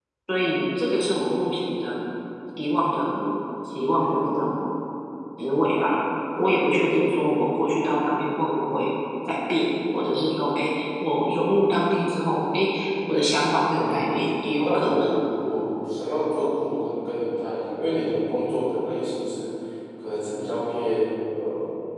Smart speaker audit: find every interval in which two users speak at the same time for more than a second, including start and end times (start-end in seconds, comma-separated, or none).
13.7-15.2